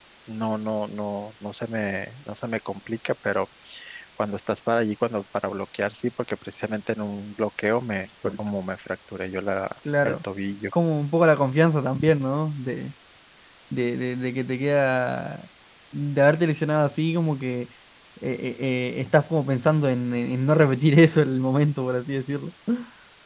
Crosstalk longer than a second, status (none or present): none